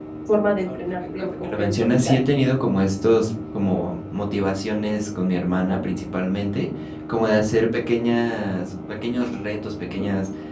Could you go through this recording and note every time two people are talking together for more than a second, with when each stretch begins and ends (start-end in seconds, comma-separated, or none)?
0.7-2.3